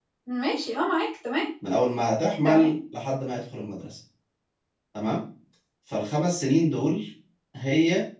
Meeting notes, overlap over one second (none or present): none